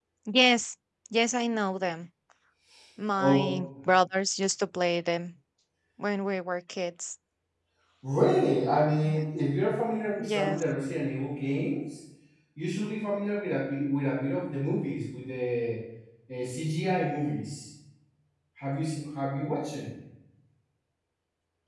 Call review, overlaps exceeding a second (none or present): none